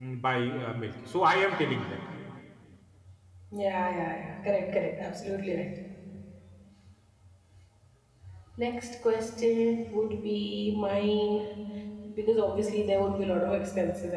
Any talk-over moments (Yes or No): No